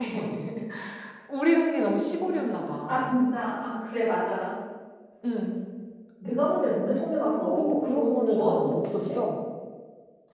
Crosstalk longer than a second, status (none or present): present